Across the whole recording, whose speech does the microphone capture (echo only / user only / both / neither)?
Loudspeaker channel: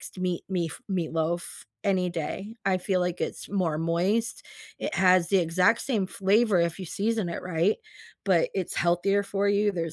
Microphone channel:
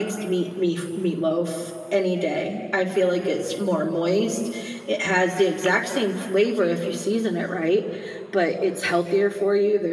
echo only